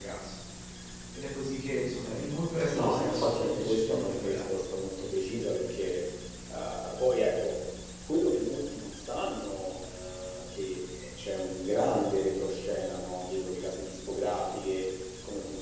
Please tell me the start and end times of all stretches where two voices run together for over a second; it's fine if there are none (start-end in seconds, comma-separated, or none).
2.7-4.4